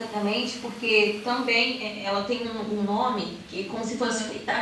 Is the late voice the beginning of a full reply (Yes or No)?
No